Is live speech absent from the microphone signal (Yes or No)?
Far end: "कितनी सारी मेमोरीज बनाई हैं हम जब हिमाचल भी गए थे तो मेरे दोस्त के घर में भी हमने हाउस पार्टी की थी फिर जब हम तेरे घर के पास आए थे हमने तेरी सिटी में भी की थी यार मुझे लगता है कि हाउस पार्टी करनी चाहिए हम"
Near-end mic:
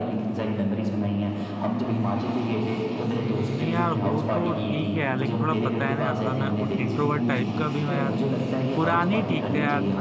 No